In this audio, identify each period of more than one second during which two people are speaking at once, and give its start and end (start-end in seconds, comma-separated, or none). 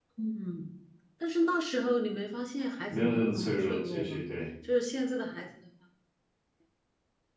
2.9-4.2